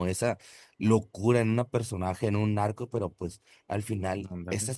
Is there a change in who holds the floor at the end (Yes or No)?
No